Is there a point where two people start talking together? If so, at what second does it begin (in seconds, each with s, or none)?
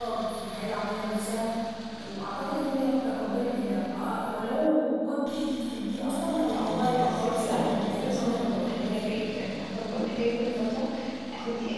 6.5 s